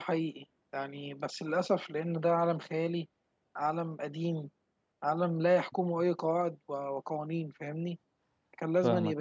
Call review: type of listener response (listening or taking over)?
listening